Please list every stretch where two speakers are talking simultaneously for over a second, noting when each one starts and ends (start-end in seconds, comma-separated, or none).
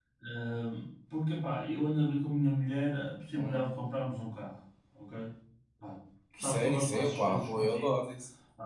6.4-7.9